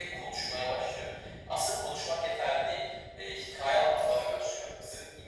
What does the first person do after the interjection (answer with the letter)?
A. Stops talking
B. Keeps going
B